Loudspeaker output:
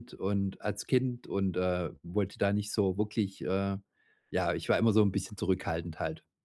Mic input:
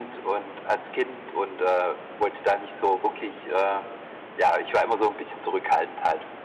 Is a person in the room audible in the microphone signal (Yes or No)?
No